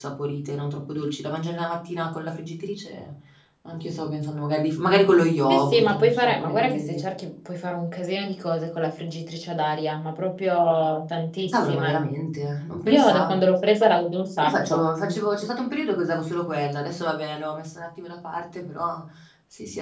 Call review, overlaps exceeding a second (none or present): present